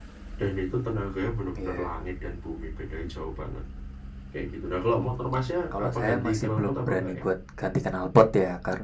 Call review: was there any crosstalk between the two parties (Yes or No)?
Yes